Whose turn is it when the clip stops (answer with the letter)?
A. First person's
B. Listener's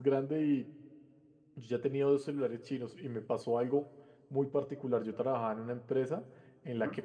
A